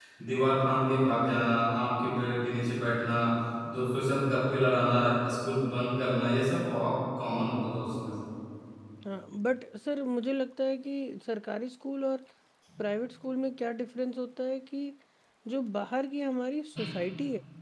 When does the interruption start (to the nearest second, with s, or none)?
none